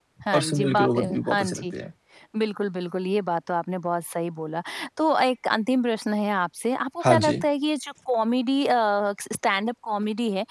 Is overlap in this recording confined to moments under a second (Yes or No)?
No